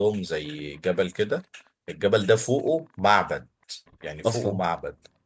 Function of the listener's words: listening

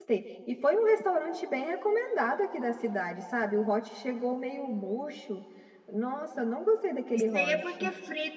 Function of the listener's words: taking over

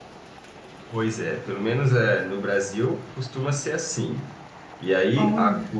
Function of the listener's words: listening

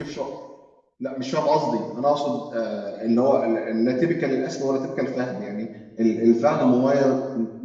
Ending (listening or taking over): listening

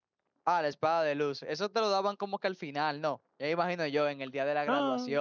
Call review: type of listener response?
listening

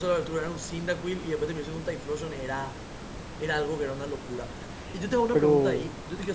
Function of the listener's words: listening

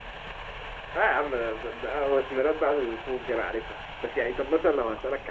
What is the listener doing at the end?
listening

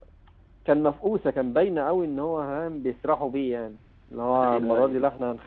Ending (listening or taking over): listening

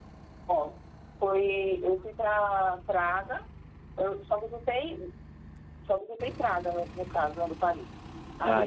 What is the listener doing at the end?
listening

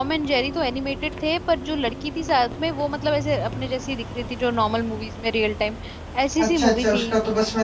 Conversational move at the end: taking over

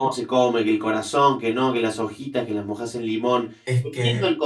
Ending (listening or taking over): listening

